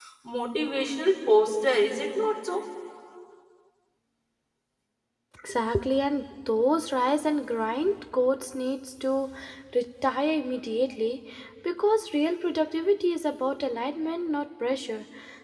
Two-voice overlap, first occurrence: none

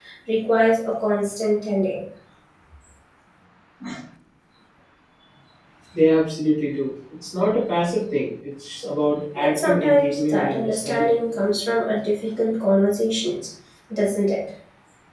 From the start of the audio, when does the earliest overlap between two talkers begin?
9.3 s

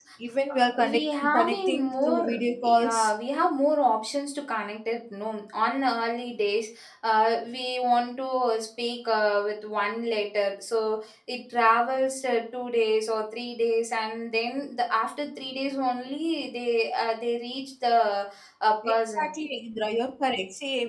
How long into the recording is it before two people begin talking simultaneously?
0.8 s

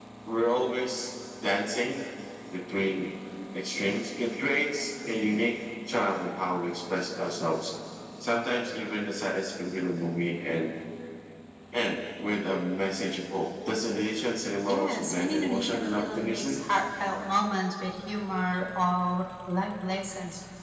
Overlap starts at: 14.7 s

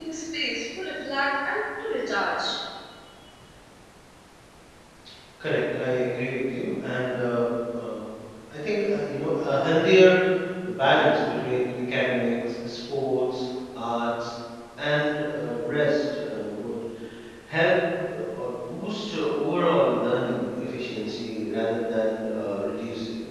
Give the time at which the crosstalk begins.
none

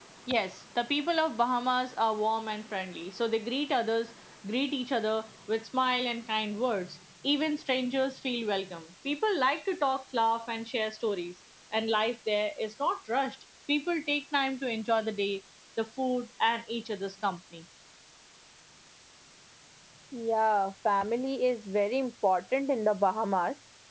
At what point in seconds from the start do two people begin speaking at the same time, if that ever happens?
none

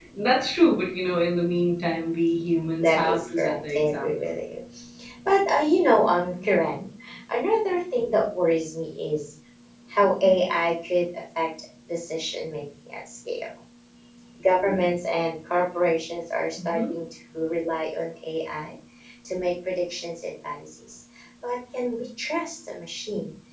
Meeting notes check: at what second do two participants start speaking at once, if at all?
2.8 s

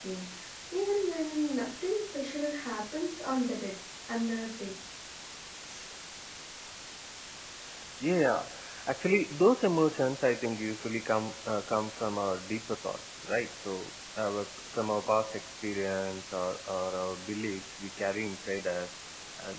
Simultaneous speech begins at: none

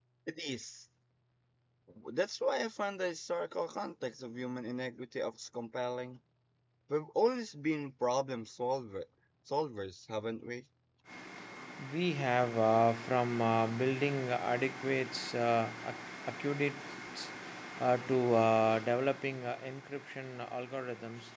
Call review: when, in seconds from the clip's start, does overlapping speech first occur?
none

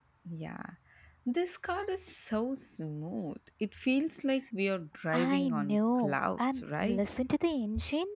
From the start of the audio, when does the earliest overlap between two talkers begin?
5.1 s

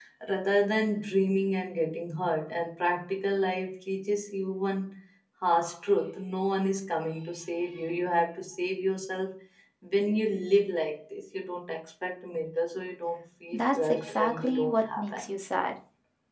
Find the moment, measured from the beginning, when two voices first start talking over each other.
13.5 s

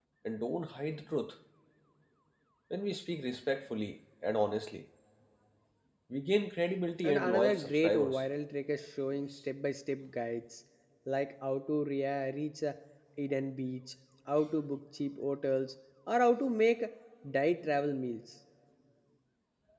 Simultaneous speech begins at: 7.0 s

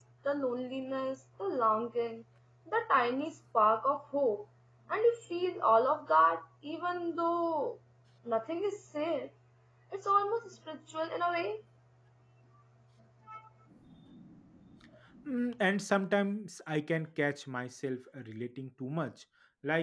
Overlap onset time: none

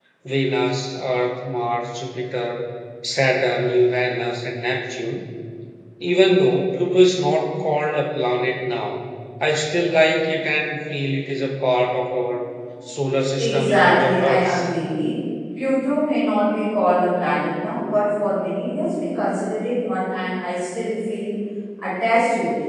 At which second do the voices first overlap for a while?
13.3 s

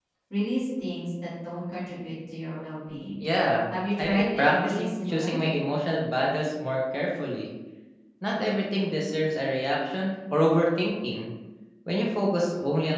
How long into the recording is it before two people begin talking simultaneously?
4.0 s

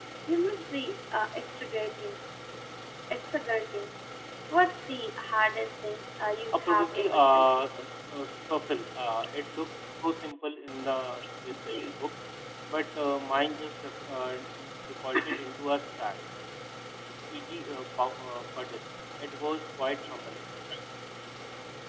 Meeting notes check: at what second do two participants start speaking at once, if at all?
6.5 s

